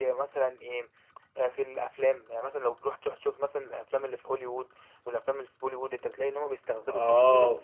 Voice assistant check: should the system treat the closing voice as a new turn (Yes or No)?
Yes